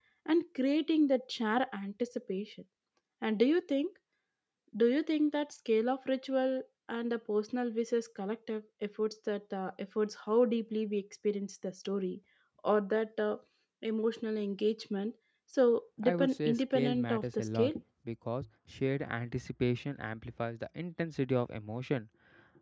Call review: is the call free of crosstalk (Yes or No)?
No